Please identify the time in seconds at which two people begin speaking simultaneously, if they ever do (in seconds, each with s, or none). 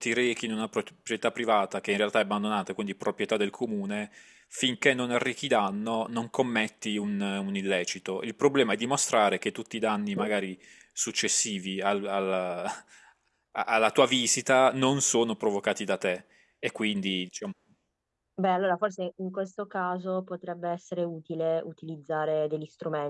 none